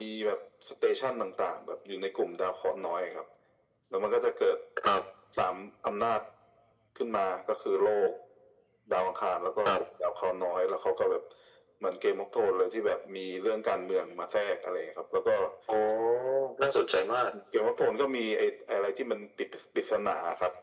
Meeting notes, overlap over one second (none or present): none